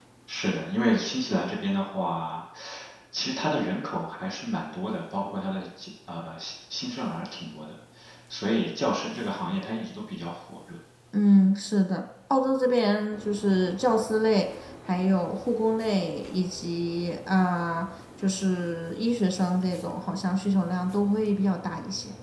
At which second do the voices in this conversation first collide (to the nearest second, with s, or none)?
none